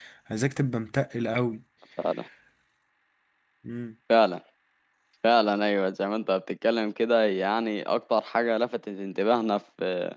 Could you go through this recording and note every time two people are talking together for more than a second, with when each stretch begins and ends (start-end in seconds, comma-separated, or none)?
none